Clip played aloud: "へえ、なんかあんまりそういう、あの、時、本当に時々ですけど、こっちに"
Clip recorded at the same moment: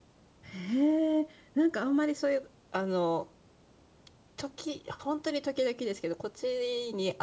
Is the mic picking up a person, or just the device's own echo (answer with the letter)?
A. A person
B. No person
B